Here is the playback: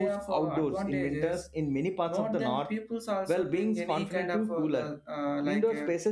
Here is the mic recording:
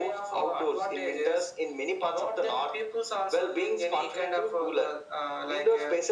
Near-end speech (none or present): none